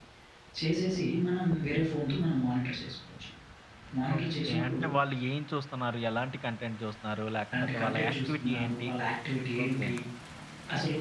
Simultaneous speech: Yes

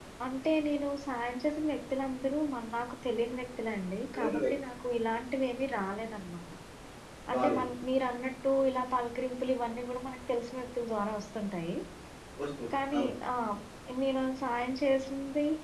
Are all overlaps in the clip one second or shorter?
Yes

